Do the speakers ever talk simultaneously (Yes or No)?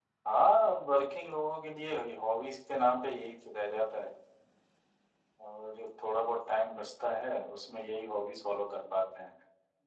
No